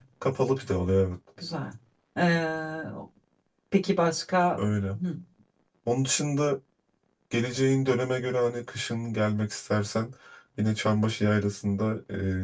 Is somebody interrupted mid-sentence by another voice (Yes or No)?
No